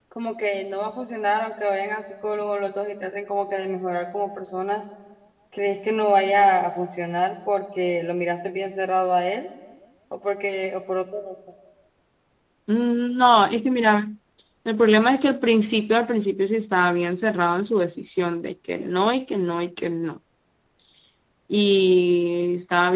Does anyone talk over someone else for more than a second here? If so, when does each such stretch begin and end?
none

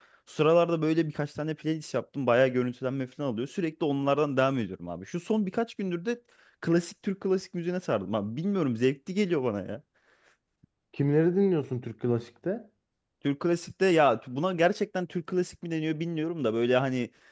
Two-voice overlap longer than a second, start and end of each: none

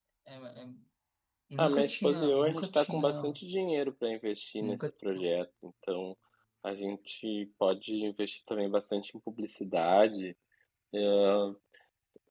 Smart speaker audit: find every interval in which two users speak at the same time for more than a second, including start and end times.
1.6-3.4

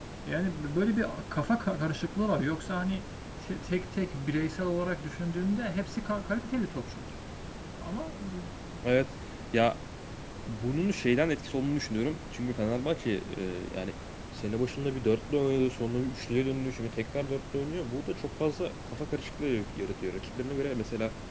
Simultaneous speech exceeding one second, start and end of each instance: none

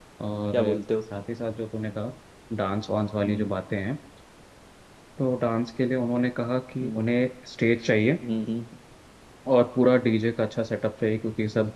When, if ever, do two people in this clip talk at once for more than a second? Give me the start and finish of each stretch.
none

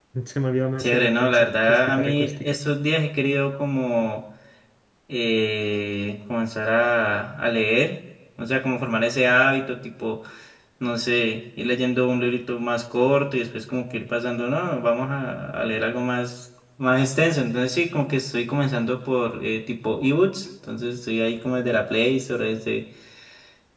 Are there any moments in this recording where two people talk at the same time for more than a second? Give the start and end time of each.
0.8-2.6

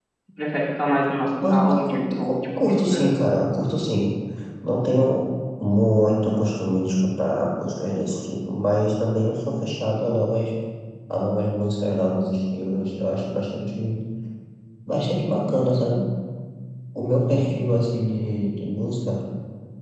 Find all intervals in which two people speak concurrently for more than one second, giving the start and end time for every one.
1.4-3.1

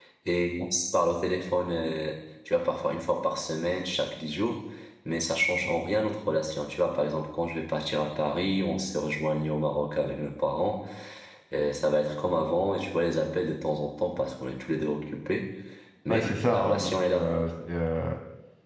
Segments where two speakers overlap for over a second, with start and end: 16.1-17.3

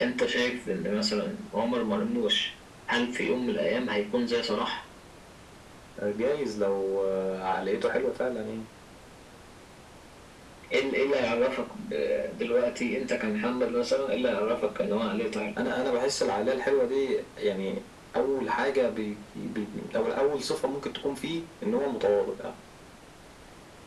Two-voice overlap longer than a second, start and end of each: none

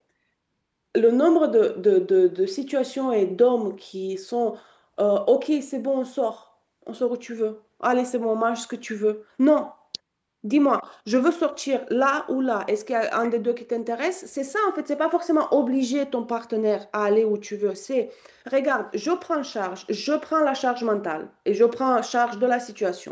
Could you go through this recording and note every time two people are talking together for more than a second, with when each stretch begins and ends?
none

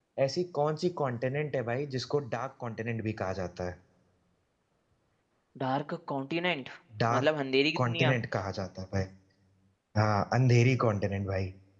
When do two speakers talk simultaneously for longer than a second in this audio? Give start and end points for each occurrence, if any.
none

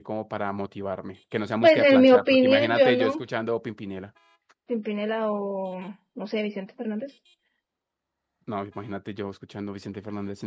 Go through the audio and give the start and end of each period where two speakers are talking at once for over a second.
1.6-3.2

